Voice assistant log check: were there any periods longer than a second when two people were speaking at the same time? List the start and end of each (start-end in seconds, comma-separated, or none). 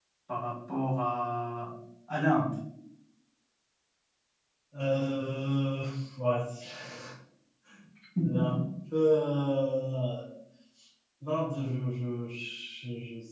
none